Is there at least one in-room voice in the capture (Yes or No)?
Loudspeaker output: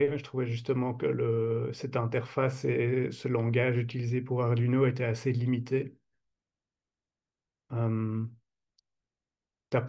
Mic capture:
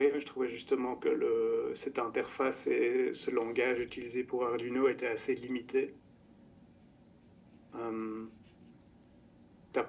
No